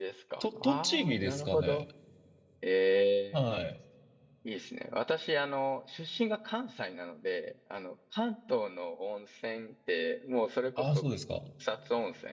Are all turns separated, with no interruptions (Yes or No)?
No